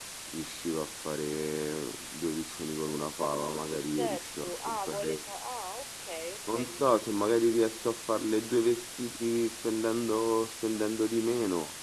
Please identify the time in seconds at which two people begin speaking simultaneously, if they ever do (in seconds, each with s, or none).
4.0 s